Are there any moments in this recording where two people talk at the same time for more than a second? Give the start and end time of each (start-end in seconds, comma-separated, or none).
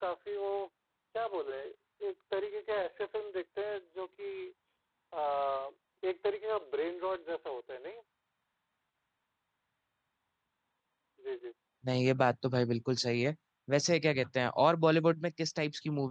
none